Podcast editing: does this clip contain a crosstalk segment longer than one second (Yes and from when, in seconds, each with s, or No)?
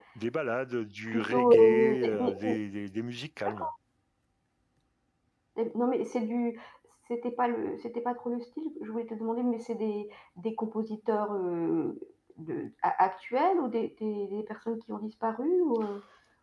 Yes, from 1.1 s